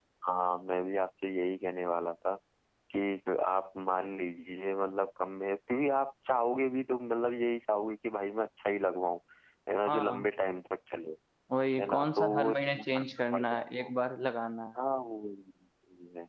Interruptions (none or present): present